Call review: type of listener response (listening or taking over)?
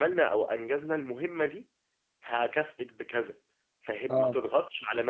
listening